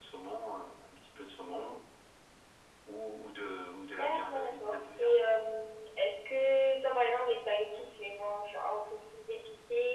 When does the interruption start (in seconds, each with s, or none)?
4.0 s